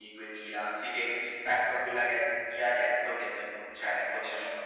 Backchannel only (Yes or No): No